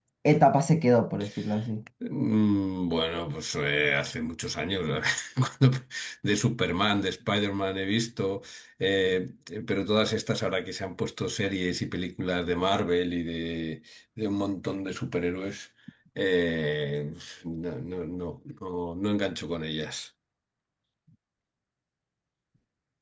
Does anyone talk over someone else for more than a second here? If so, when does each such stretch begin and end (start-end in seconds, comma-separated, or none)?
none